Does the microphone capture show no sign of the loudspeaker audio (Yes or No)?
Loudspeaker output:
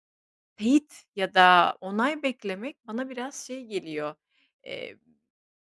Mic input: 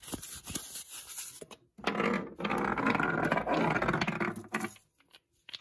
Yes